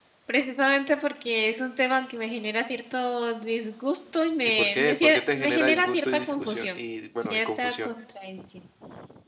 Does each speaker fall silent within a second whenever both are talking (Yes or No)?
No